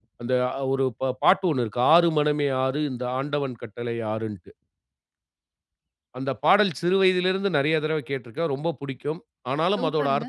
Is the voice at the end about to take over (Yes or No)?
No